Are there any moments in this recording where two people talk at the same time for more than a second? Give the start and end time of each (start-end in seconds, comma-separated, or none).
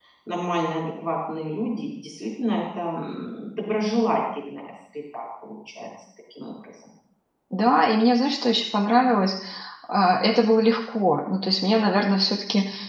none